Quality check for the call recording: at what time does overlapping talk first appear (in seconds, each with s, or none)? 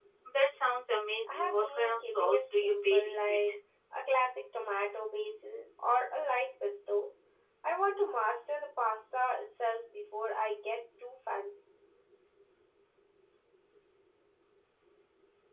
1.3 s